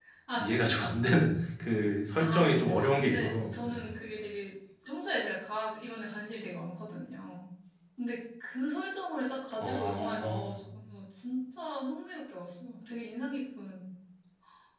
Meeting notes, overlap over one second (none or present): present